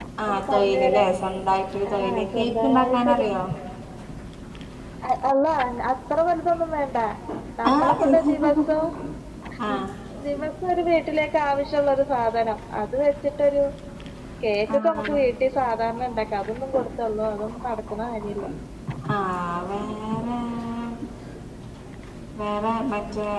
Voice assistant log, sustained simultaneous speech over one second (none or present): present